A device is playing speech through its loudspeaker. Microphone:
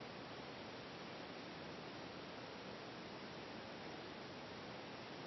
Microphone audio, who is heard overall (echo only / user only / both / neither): neither